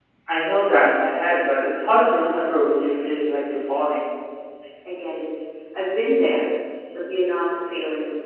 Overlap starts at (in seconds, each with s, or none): none